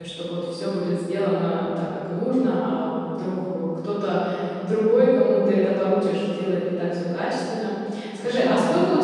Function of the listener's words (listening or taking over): listening